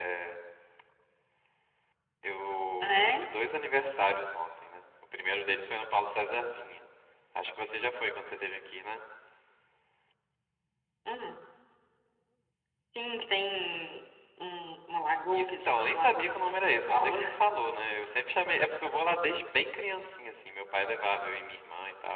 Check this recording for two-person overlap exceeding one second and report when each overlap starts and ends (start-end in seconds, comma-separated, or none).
15.3-17.2